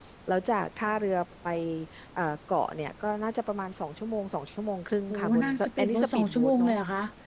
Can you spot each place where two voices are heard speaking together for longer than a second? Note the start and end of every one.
5.1-6.7

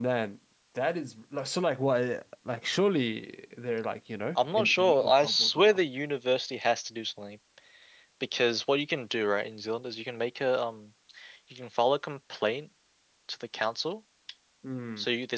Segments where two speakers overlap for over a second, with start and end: 4.4-5.8

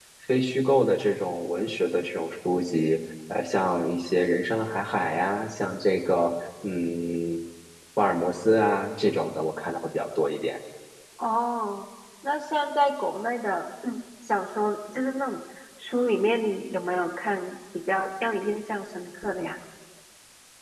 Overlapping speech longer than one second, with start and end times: none

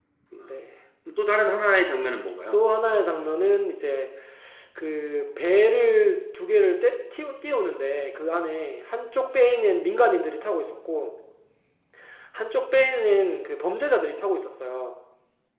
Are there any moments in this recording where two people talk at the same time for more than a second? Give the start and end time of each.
none

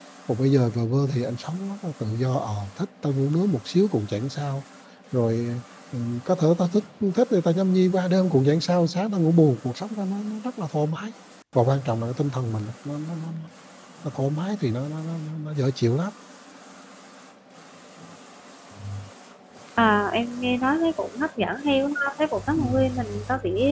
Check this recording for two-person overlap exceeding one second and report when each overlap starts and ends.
none

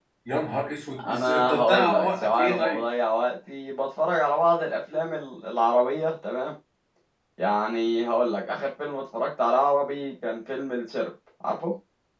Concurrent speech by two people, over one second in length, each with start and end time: 1.1-2.8

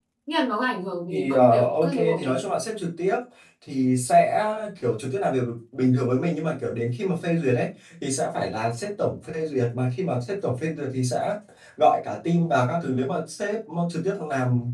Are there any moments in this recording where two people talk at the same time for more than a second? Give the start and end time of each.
1.1-2.4

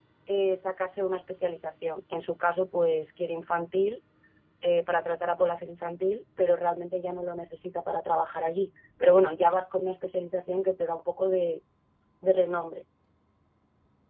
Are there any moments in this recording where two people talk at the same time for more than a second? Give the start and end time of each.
none

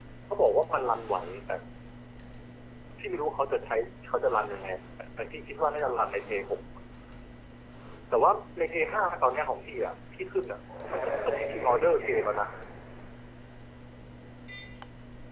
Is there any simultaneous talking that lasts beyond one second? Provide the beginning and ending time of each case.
10.9-12.2

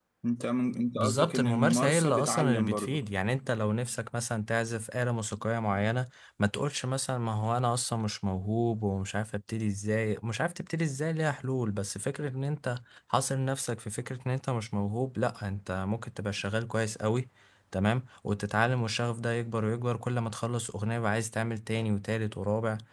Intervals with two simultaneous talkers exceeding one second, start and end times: 1.0-3.0

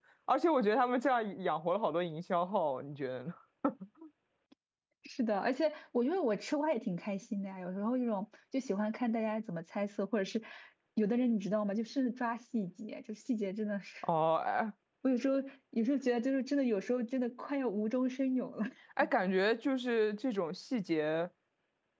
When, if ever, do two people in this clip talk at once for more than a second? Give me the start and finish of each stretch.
none

